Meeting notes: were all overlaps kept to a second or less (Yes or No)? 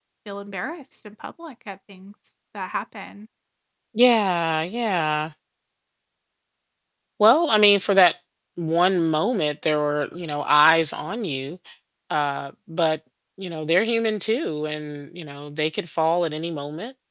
Yes